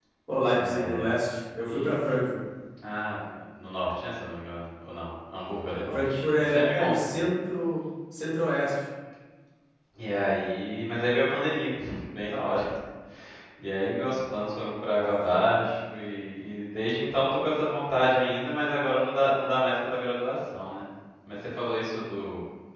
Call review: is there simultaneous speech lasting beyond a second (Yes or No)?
Yes